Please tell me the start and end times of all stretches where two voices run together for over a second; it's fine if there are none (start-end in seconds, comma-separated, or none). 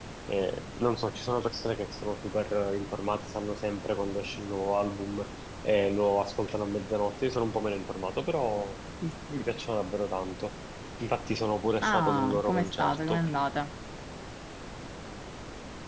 11.8-13.2